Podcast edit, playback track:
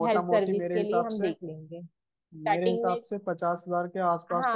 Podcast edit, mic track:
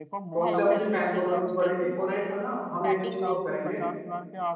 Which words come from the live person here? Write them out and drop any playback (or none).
तो उससे अपनी फैन फॉलोइंग भी बढ़ेगी और एक है ना हम एक चीज और करेंगे